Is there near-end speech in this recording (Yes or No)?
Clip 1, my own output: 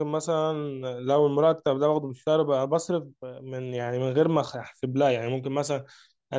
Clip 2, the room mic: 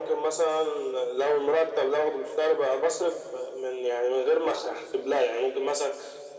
No